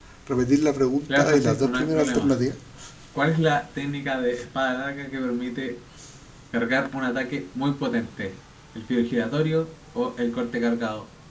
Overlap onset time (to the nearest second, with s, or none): 1 s